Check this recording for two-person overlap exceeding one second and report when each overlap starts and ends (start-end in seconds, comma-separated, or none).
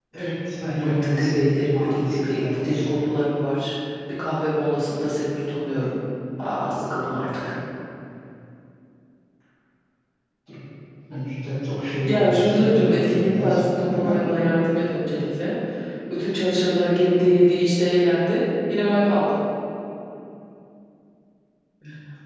0.8-3.0, 12.1-13.6